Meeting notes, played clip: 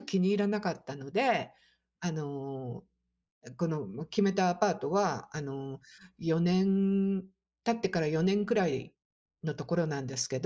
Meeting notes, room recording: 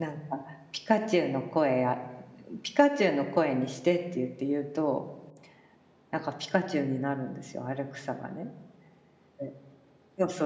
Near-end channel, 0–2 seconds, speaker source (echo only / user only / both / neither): user only